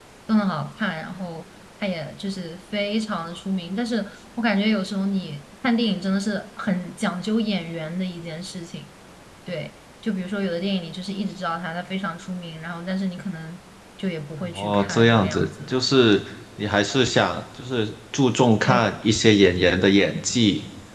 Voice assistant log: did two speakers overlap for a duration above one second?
Yes, from 14.4 s

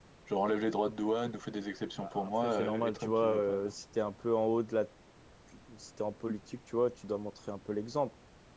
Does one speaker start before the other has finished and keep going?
Yes, from 2.0 s

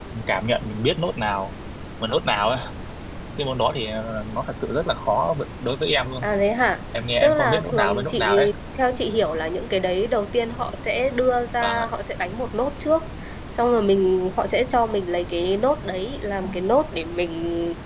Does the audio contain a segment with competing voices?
Yes, from 7.2 s

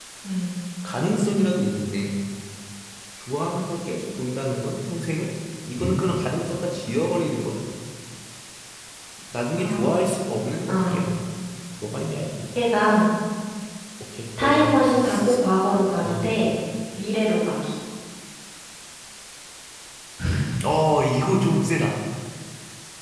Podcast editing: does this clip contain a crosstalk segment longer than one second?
No

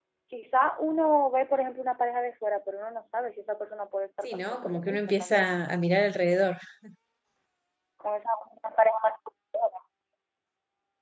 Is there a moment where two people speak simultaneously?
Yes, from 4.2 s

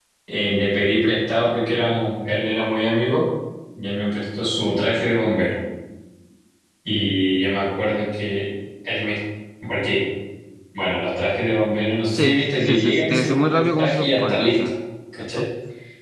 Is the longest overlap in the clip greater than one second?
Yes, from 12.1 s

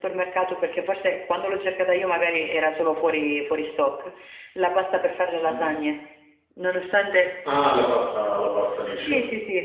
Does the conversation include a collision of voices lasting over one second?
No

